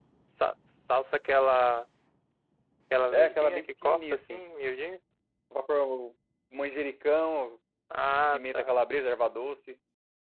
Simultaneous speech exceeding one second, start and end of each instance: 3.1-4.4

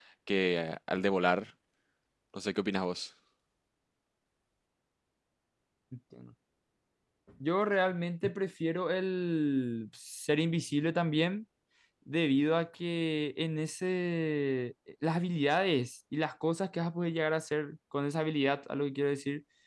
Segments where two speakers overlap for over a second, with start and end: none

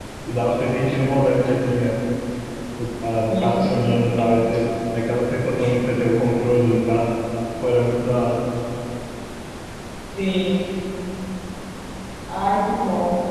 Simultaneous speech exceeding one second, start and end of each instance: none

